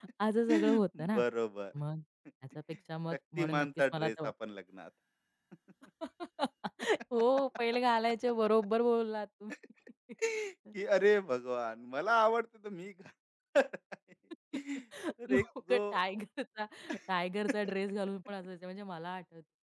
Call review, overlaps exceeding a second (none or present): present